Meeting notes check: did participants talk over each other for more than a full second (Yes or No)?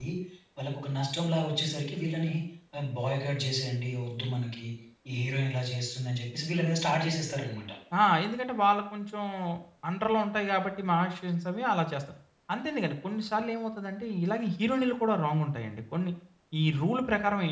No